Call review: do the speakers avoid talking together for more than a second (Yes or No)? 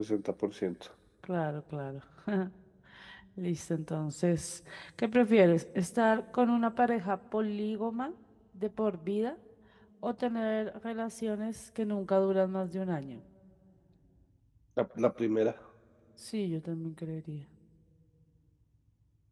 Yes